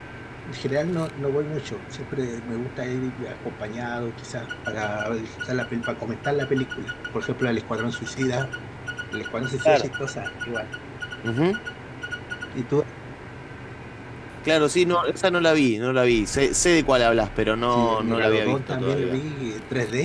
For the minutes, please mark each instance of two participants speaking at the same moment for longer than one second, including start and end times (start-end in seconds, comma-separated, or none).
17.7-19.2